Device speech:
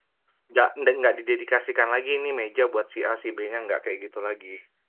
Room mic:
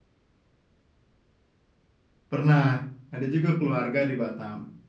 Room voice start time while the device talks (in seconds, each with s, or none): 2.3 s